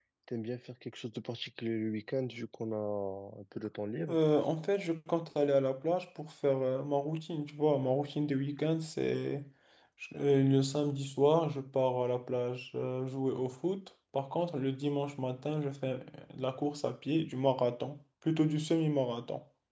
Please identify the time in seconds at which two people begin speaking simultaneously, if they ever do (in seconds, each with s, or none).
none